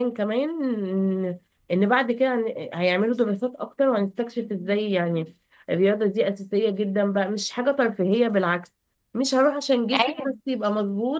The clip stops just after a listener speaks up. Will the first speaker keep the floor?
Yes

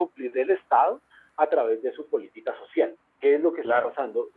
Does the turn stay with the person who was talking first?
Yes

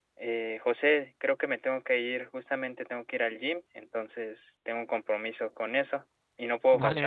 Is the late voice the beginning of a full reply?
Yes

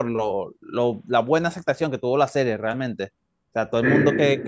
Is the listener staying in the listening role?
Yes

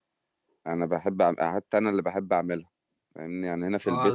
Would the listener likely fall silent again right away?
No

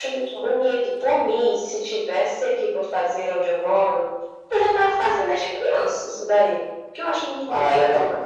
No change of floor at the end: No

